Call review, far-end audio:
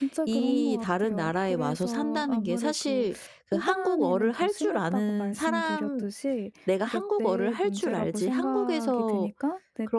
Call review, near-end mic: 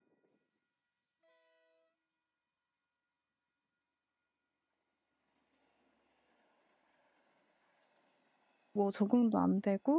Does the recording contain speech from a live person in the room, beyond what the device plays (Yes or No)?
Yes